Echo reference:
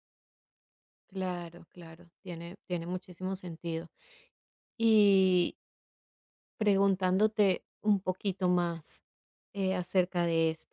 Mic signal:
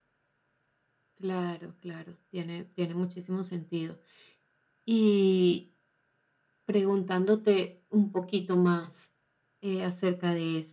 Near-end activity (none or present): none